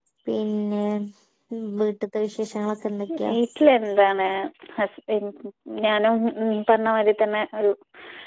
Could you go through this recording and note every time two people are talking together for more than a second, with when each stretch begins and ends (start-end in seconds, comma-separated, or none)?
none